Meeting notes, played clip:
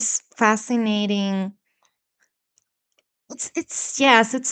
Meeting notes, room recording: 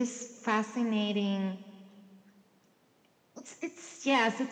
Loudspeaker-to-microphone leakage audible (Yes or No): Yes